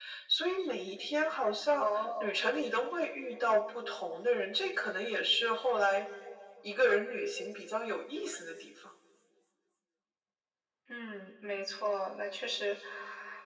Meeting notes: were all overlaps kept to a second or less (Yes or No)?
Yes